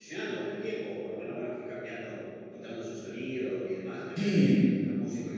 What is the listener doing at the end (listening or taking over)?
listening